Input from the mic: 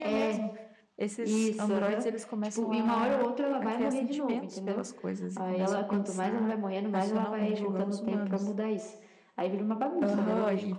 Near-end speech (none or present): present